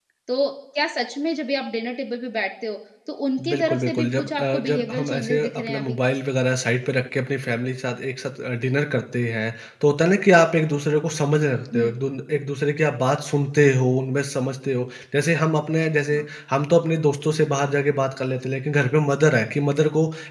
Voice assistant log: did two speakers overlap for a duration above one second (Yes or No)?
Yes